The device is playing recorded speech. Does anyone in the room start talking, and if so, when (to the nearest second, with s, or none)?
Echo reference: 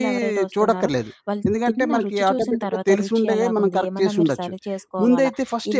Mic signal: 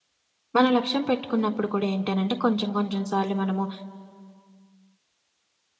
1 s